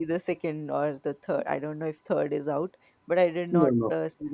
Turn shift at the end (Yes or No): No